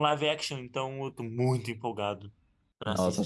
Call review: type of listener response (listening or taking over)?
taking over